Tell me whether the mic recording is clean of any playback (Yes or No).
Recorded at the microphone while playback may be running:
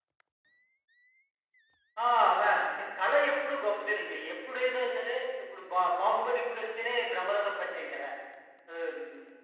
No